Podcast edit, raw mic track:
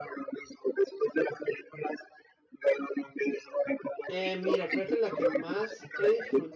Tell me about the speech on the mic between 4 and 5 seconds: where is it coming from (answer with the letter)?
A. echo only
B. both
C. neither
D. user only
B